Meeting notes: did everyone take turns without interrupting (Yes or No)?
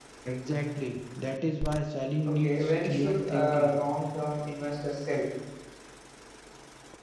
No